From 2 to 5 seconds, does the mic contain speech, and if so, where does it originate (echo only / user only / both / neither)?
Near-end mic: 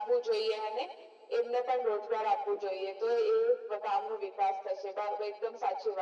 echo only